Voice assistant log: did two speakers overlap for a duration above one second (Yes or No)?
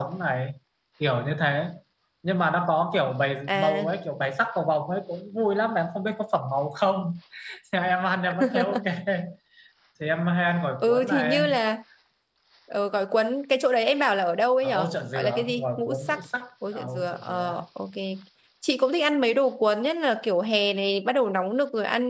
Yes